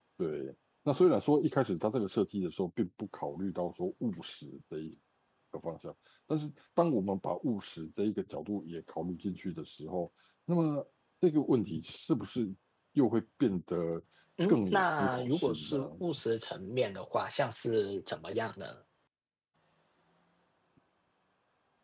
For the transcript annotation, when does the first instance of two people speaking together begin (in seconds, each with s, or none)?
14.5 s